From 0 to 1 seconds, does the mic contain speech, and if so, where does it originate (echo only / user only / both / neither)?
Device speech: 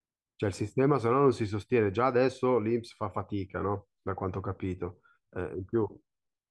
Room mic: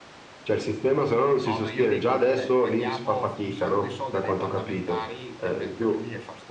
echo only